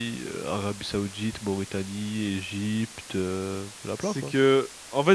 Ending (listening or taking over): taking over